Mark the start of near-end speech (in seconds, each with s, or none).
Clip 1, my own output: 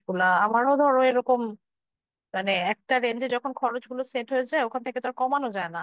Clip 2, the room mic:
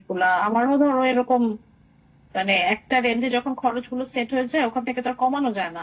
none